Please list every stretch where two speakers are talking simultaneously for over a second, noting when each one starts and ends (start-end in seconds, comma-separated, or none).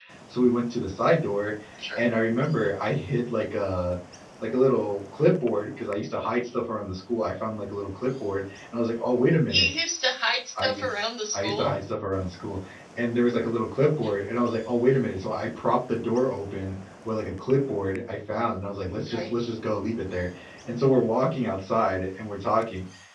none